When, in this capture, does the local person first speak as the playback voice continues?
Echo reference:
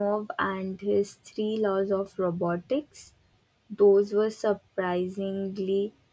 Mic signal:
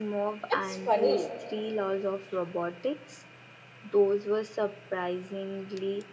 0 s

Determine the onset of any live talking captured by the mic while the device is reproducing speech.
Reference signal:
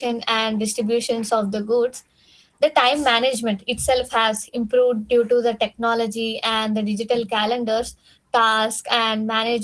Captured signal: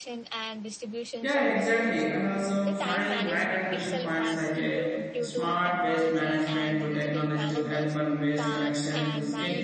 1 s

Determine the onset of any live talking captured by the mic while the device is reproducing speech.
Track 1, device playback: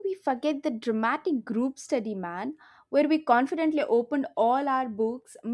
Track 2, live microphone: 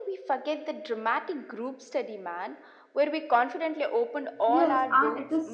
4 s

